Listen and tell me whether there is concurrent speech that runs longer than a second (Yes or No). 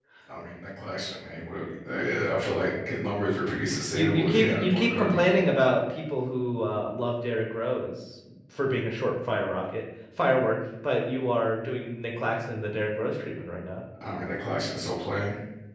Yes